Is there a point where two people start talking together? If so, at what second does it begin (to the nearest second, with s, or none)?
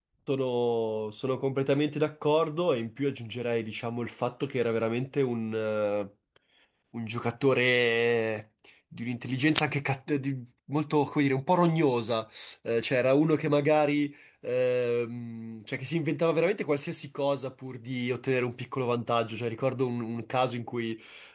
none